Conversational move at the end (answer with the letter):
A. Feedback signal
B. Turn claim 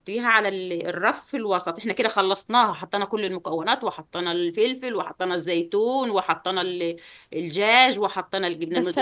B